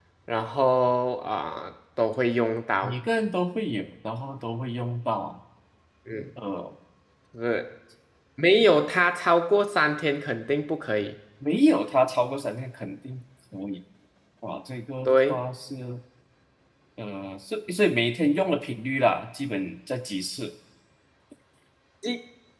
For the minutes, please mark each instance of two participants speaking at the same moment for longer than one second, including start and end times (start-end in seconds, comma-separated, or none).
none